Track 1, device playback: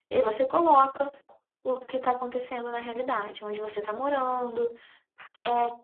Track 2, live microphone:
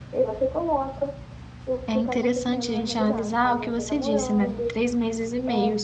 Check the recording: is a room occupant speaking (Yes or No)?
Yes